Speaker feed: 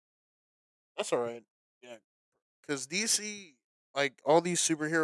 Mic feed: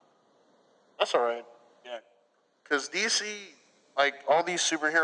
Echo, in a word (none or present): present